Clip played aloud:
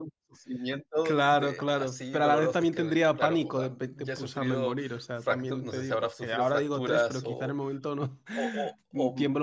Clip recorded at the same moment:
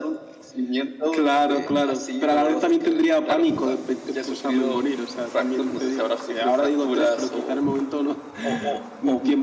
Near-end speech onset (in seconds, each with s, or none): none